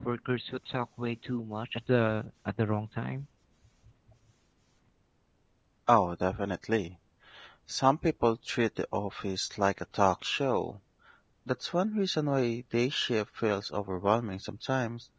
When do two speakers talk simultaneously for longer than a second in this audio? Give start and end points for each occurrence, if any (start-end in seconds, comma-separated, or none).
none